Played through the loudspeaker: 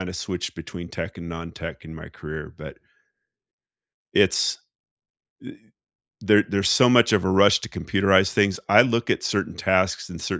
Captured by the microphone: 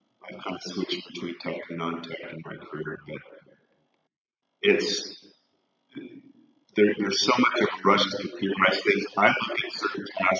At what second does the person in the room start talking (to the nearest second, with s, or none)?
none